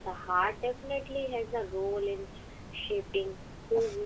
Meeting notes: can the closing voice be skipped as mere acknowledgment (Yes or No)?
No